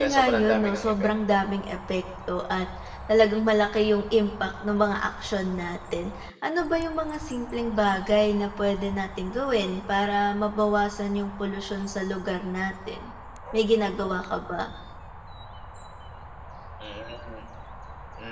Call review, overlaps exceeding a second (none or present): present